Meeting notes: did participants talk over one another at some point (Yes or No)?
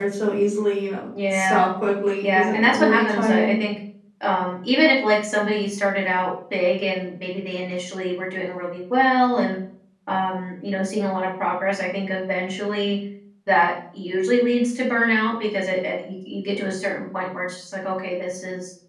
Yes